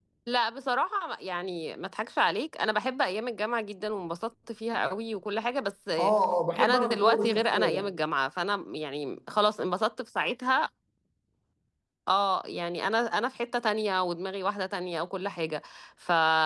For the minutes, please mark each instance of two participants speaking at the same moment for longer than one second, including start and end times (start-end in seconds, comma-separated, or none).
6.6-8.0